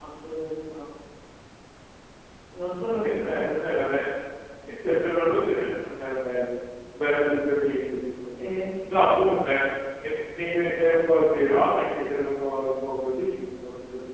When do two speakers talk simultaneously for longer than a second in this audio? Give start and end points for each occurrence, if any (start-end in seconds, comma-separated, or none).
none